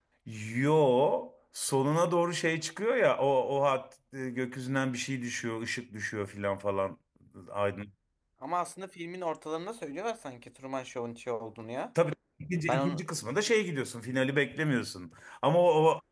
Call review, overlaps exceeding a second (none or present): none